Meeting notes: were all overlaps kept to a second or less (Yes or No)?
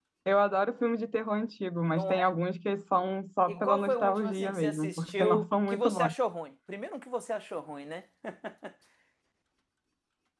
No